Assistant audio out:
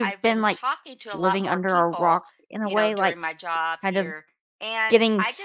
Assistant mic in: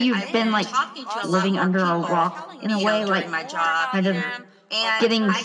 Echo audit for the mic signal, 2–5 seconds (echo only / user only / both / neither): both